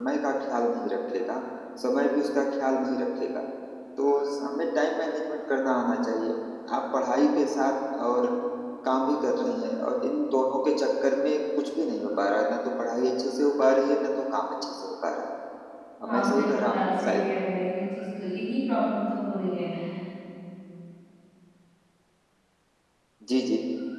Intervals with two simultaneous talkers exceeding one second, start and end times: 16.1-17.3

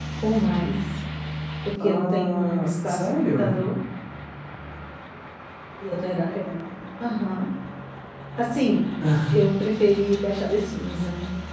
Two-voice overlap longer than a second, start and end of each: 1.8-3.6

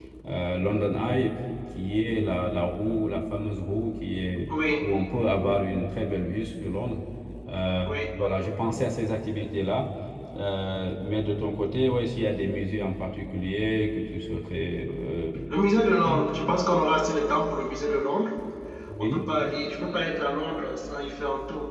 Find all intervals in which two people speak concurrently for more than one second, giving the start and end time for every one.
none

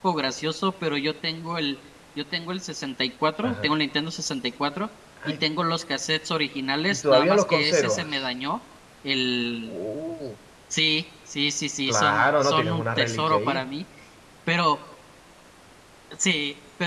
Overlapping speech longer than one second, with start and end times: 6.9-8.3, 11.9-13.6

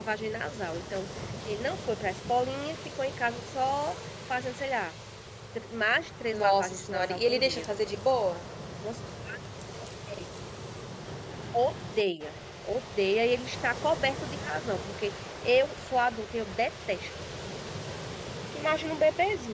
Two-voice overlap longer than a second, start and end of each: 6.3-7.7

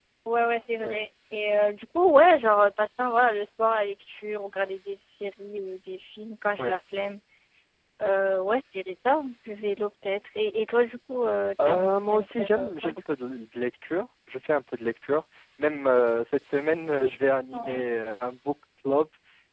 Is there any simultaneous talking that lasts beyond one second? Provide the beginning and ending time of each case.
11.6-12.9

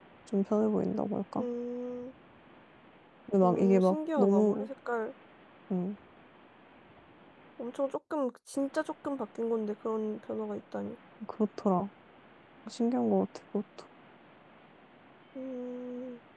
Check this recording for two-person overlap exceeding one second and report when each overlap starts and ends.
3.4-4.7

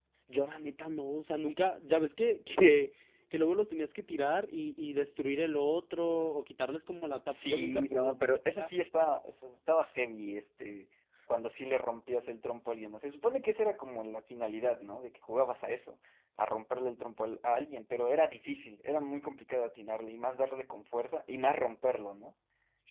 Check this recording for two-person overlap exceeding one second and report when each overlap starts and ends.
7.3-8.7

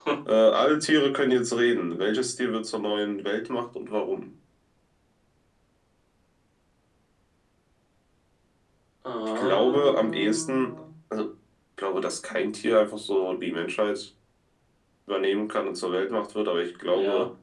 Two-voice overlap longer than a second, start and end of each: 9.3-10.7

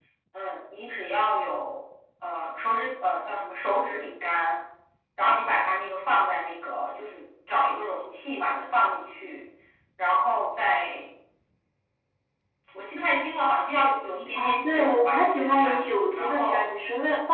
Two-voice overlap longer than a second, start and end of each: 14.4-16.6

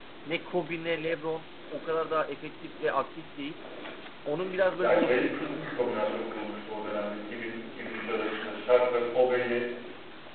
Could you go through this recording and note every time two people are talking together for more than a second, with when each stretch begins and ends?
4.8-6.0

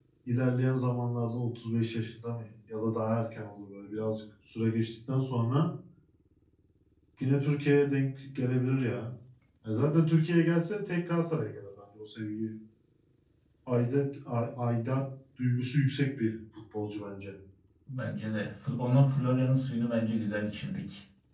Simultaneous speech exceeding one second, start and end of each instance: none

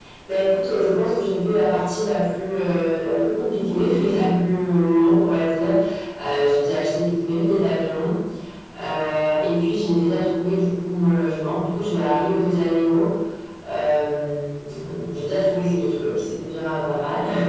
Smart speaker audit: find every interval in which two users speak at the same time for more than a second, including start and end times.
none

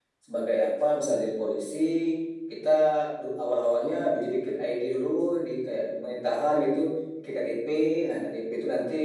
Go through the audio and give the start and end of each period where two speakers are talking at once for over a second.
none

